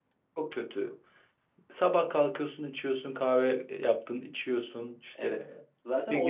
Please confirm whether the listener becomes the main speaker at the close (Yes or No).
Yes